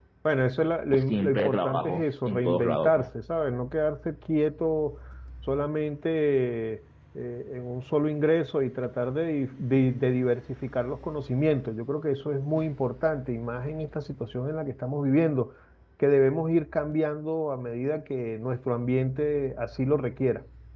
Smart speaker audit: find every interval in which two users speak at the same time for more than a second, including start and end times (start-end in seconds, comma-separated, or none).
0.9-3.1